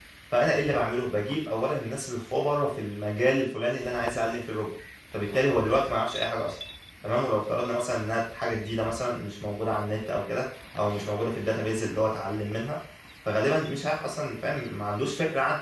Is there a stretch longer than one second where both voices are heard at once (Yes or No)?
No